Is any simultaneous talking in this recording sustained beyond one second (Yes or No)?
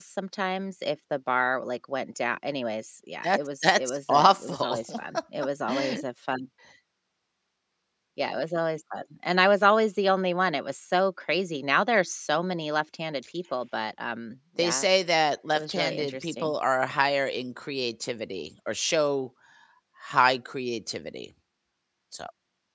Yes